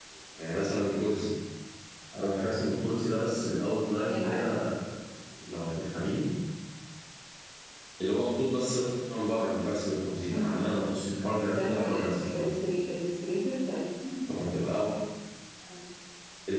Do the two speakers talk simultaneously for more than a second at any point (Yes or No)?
No